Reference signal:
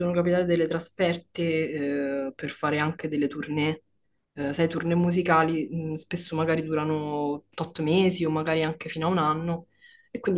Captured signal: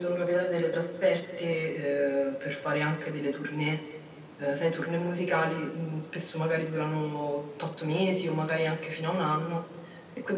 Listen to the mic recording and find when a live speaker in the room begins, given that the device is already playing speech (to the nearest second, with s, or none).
none